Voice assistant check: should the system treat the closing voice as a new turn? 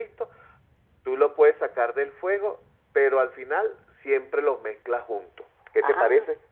Yes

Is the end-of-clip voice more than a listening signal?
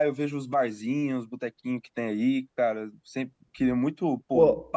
Yes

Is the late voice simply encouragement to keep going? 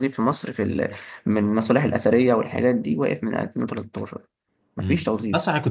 No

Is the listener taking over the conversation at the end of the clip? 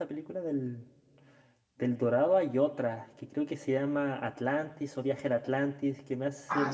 Yes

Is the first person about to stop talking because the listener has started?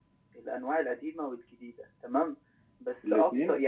No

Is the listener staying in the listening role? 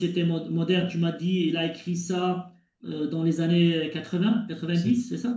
No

